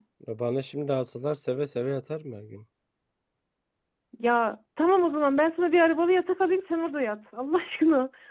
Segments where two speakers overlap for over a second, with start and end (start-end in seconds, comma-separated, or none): none